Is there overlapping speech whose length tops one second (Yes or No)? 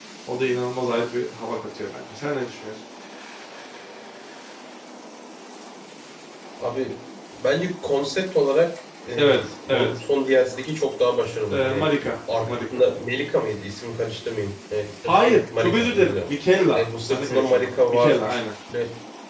Yes